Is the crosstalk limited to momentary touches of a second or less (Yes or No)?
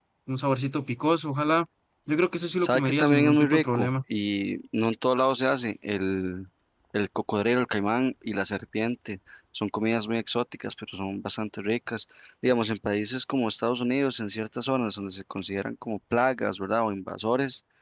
No